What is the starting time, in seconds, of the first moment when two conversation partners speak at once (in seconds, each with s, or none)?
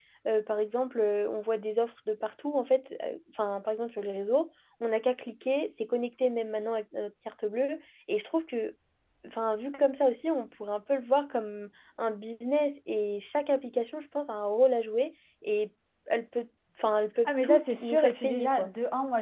17.2 s